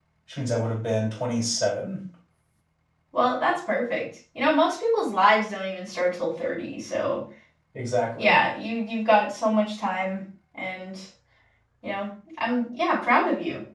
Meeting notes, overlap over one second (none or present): none